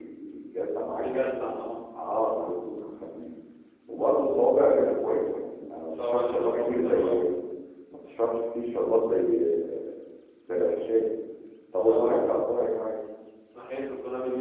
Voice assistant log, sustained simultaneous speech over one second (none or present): present